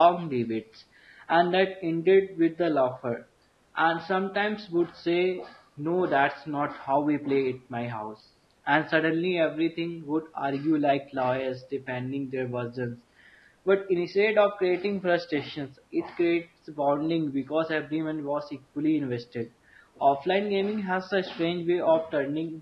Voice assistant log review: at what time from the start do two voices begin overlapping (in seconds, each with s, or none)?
none